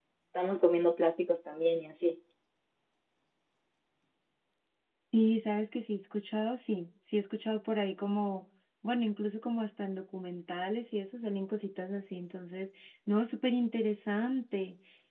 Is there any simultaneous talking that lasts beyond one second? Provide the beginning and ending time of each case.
none

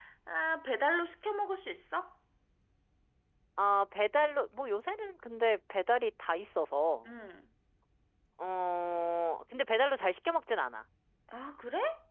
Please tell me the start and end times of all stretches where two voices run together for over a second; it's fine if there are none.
none

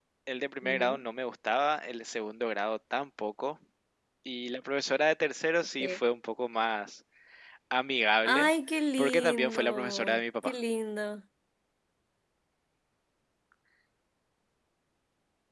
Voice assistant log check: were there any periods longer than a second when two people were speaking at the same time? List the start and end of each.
9.0-10.5

